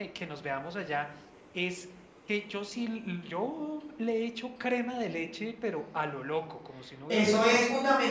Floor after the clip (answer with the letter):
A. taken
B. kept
A